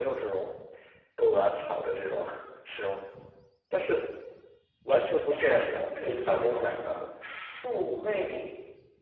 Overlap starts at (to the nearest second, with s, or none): 5 s